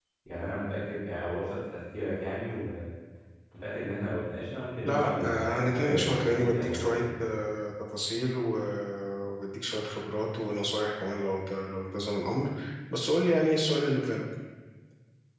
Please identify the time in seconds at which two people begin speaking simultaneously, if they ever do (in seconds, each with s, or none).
4.8 s